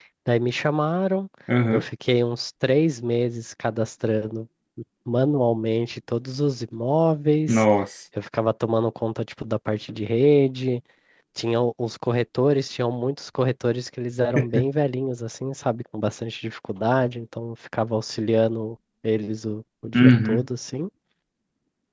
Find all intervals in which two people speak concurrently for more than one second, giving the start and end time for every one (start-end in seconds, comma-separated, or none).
none